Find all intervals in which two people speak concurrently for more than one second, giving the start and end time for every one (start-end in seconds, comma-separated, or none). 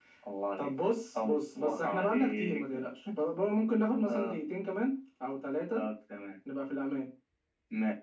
1.2-2.6